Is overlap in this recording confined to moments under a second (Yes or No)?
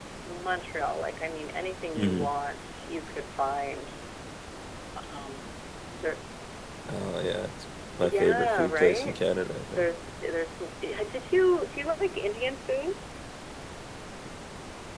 No